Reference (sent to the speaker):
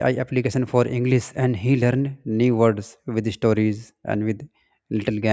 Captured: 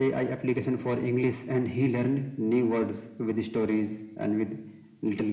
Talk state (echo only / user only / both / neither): echo only